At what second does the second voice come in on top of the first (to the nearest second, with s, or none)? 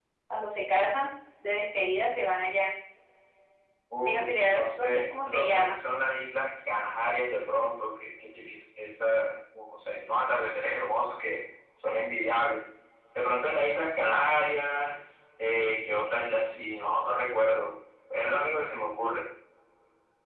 4 s